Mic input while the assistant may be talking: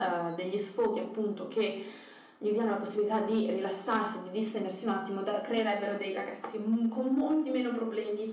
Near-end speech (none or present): none